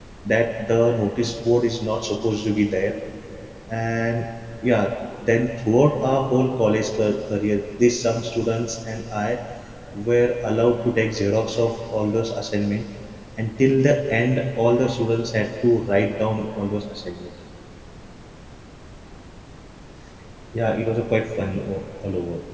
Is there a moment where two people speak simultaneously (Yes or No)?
No